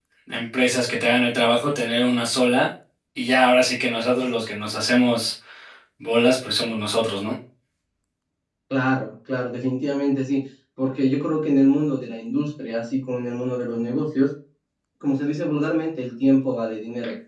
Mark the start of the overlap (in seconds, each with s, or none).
none